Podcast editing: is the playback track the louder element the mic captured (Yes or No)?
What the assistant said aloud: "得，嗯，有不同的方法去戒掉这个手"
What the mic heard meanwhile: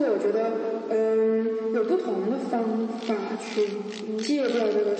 Yes